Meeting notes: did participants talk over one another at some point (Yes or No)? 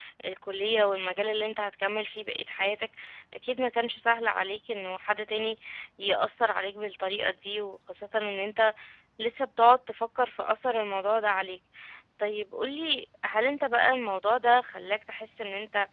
No